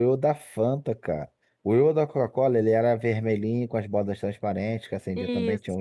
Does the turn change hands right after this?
No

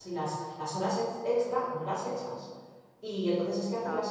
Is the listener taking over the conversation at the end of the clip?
No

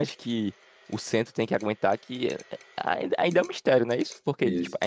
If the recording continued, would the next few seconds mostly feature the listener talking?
No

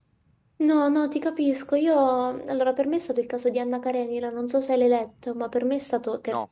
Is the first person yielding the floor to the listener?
No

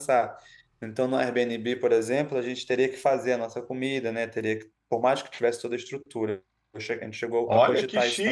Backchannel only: No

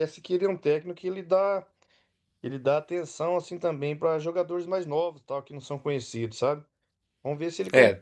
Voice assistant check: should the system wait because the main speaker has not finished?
Yes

